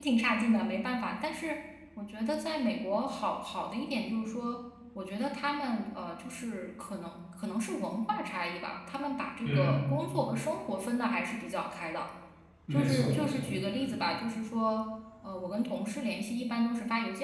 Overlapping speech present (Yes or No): Yes